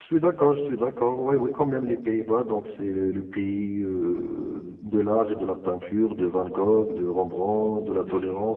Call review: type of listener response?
listening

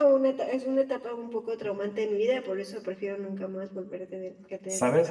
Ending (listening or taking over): taking over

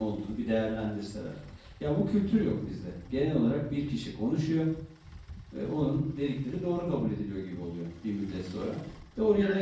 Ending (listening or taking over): listening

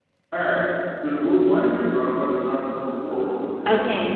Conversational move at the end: taking over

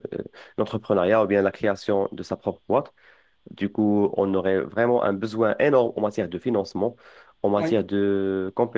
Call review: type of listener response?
listening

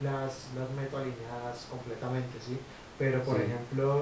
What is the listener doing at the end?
listening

